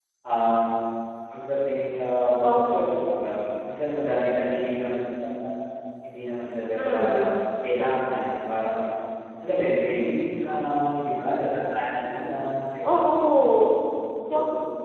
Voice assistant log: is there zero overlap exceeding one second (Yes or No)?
Yes